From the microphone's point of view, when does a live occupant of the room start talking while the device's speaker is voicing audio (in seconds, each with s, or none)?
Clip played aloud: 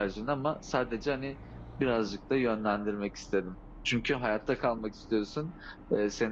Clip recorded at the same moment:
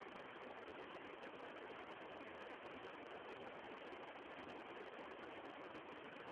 none